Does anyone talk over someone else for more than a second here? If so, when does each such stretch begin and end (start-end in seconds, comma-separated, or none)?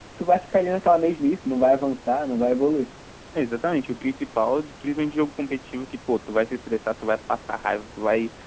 none